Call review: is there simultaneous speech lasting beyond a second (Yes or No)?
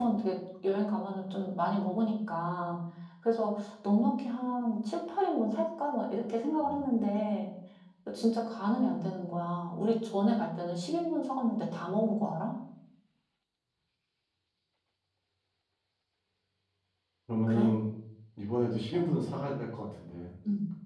No